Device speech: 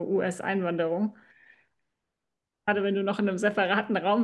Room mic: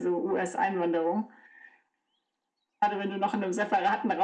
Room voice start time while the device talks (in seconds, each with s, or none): none